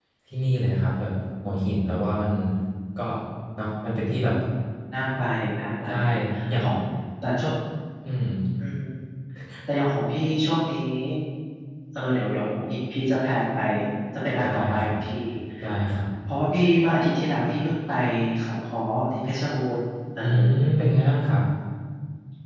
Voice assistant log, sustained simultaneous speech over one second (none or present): none